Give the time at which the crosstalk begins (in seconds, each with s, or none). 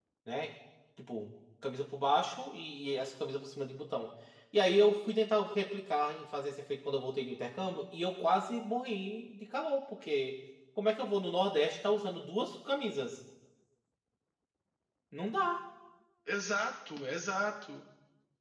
none